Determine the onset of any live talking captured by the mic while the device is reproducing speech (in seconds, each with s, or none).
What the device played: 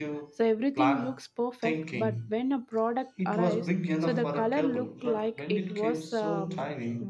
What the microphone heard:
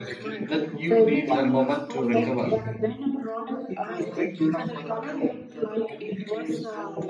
0.5 s